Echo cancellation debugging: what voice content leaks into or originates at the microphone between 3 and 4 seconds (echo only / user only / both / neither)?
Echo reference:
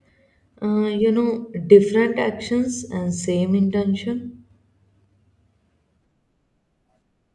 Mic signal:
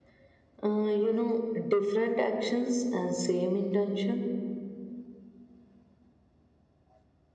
echo only